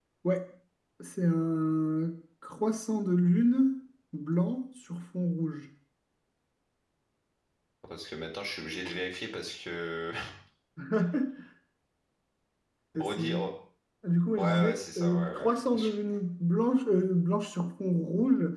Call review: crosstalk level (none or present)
present